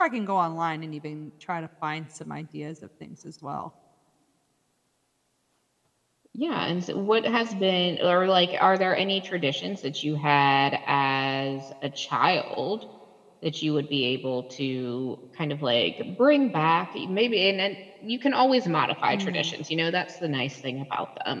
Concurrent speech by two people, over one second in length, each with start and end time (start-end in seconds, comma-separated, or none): none